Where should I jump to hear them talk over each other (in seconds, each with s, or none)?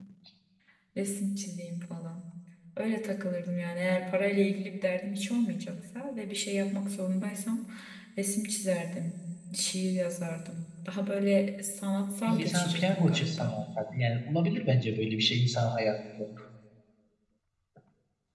12.2 s